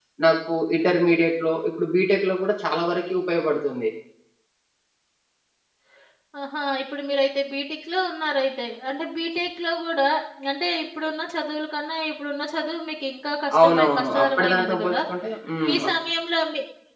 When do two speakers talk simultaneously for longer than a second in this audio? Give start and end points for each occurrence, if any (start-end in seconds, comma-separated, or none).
13.6-15.0